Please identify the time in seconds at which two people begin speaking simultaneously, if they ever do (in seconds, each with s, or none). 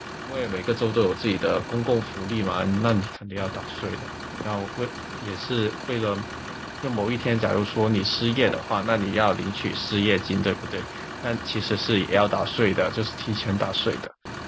none